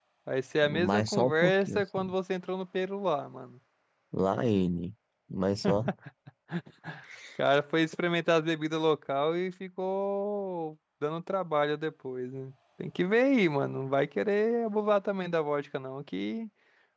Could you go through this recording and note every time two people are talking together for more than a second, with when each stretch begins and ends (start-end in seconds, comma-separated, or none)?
0.7-2.1